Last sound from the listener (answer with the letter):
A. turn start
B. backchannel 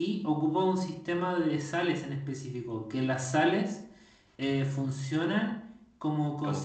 B